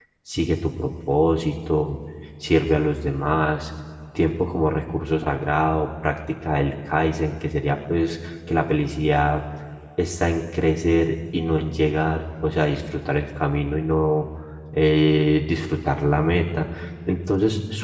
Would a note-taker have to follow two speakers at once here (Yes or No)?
No